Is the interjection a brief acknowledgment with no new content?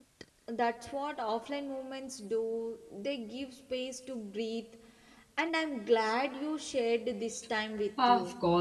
No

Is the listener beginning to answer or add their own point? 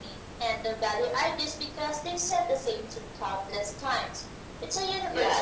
Yes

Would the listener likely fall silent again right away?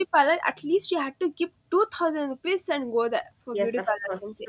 No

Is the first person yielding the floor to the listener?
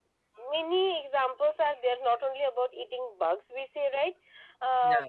No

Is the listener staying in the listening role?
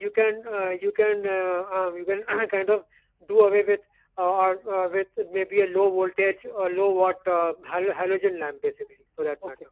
No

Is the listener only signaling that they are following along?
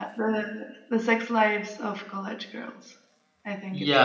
No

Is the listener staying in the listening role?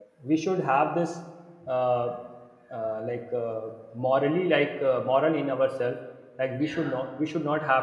Yes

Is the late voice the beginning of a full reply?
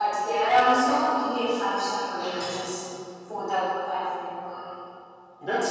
Yes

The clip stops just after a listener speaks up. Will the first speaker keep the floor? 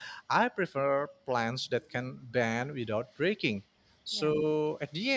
Yes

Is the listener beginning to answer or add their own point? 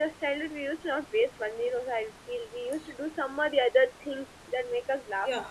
Yes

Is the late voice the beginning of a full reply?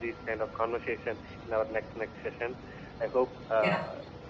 No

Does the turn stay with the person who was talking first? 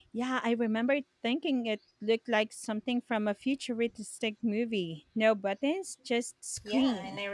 No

